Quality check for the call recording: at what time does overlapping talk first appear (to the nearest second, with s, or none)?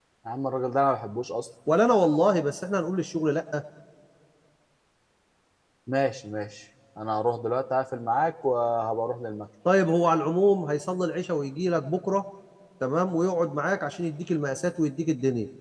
none